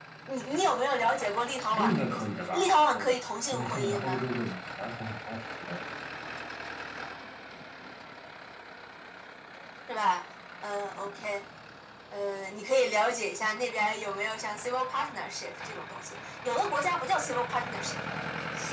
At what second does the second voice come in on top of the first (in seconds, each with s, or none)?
1.7 s